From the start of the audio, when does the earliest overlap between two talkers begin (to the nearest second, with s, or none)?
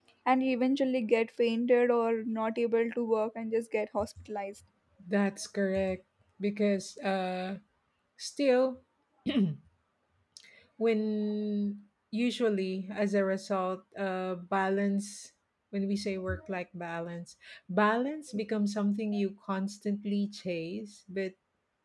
none